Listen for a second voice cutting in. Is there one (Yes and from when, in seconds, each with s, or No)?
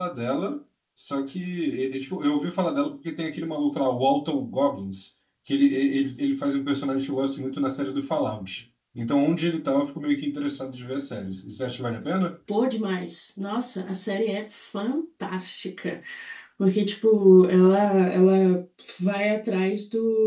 No